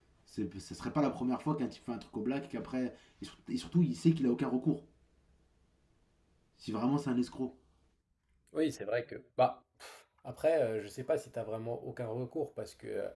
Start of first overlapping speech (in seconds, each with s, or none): none